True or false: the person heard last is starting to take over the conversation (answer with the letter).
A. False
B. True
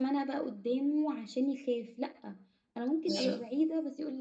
A